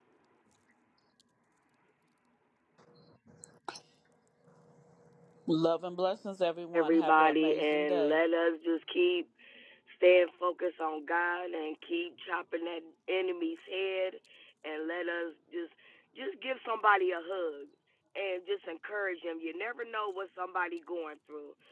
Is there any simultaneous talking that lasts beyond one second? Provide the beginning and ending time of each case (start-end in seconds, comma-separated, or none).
6.7-8.2